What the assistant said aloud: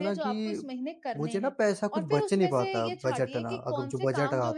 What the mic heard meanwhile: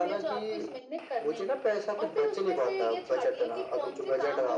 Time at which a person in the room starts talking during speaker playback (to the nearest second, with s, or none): none